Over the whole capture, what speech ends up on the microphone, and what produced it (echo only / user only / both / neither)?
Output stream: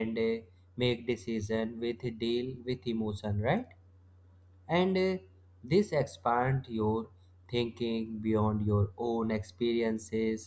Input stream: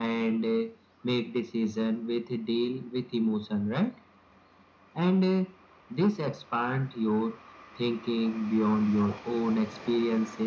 echo only